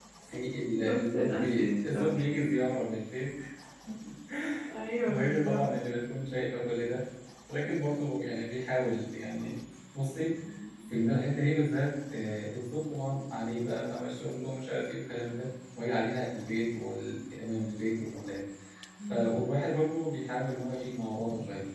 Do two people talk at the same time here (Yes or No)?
Yes